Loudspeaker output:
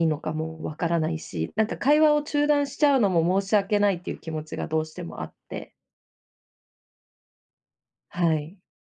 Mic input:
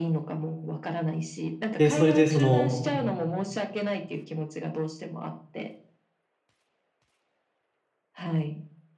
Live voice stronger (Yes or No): Yes